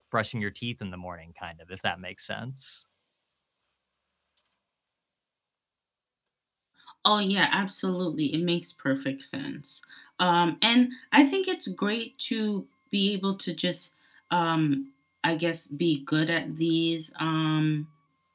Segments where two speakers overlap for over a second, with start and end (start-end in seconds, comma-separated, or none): none